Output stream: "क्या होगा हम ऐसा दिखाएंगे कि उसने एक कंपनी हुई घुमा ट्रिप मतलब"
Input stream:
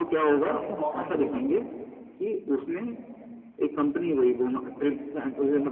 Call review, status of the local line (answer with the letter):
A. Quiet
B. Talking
B